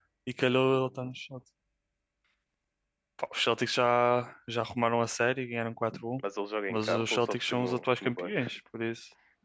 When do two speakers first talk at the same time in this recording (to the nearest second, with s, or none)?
7 s